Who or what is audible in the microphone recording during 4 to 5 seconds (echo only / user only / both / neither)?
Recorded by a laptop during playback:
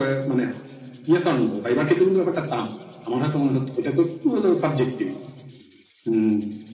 echo only